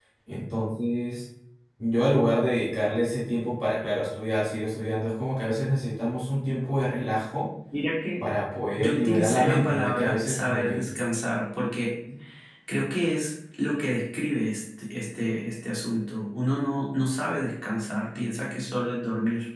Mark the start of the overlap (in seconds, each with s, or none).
8.8 s